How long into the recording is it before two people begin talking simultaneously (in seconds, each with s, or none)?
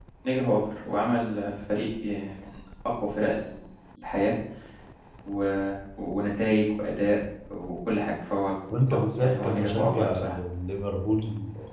8.7 s